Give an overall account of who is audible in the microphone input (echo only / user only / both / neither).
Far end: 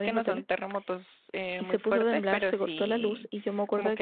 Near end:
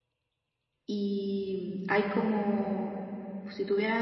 user only